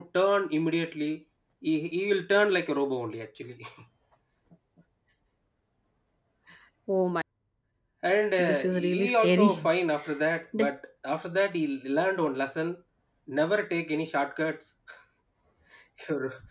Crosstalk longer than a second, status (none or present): present